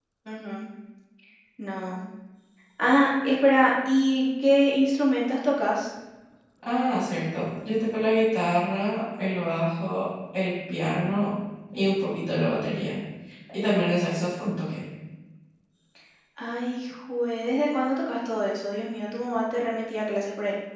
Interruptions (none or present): none